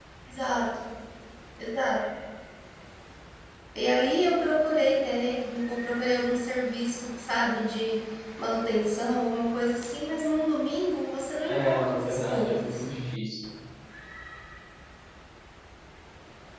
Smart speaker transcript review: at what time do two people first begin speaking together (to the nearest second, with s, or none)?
11 s